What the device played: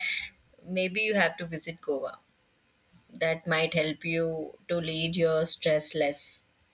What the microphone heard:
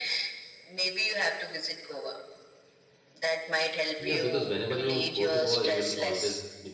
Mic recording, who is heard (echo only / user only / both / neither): both